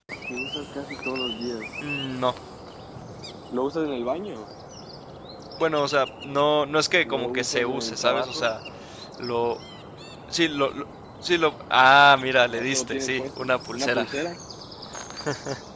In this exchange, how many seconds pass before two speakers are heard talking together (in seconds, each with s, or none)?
7.0 s